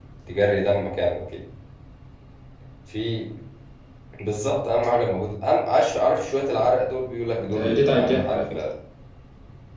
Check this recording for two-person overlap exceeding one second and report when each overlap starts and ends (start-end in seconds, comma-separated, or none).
7.4-8.7